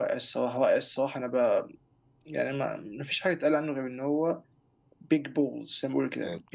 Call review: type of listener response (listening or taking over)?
taking over